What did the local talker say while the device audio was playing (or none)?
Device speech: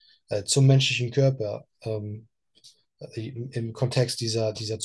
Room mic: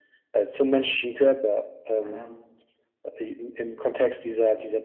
Mhm.